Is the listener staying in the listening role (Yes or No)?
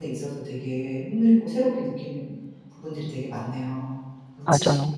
No